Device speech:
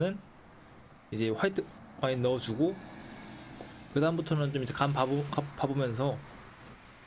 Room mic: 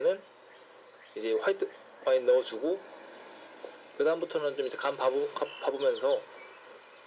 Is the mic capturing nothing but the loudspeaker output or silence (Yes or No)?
Yes